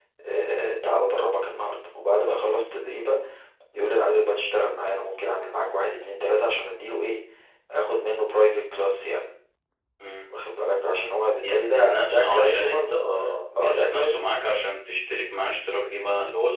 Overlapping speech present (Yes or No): Yes